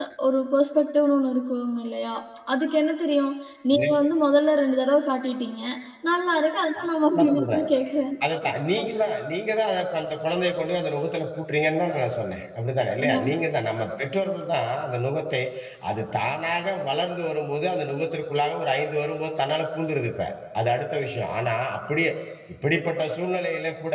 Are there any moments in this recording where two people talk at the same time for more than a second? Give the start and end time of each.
none

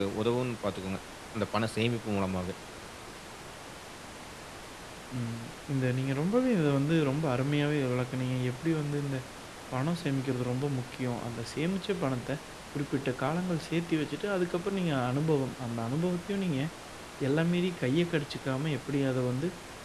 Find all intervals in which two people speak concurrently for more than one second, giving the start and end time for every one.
none

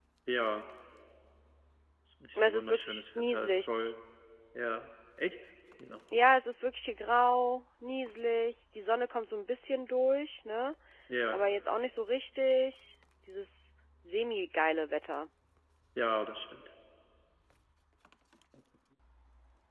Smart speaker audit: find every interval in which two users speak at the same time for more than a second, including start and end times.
2.4-3.7

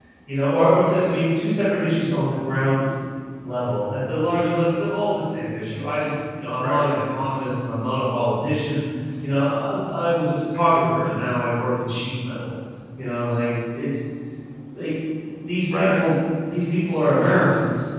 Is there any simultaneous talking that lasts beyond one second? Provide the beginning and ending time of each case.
none

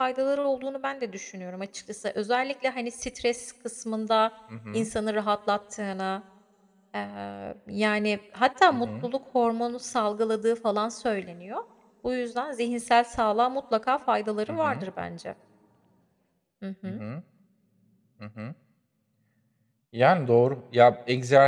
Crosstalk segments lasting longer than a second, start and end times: none

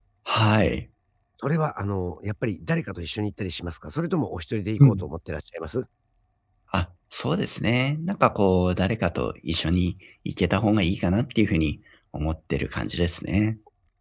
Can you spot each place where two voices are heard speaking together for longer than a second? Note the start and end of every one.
none

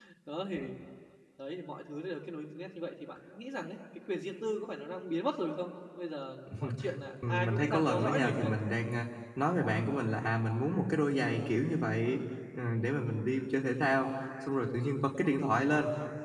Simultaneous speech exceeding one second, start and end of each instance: 7.3-8.5

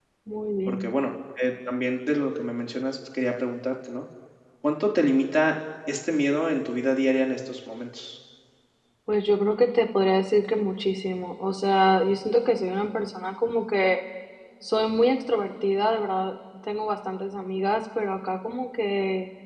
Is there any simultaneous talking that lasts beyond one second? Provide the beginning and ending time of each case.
none

